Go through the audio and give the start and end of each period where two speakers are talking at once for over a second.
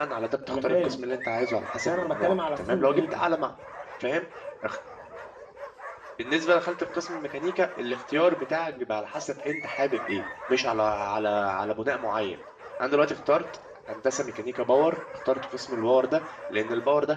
1.8-3.2

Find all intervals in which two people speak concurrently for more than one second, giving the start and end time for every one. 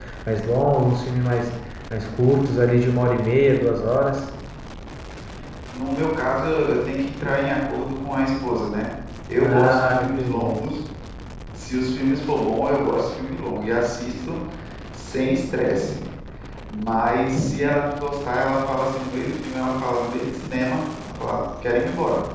9.4-10.7

